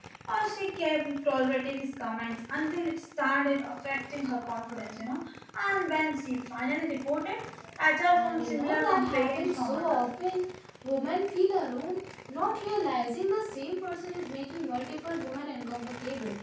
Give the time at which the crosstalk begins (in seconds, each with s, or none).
8.1 s